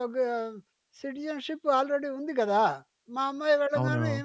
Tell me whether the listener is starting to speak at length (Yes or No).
No